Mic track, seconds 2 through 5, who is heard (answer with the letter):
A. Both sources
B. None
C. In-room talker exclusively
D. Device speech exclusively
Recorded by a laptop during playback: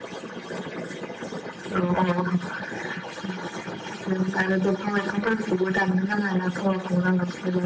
D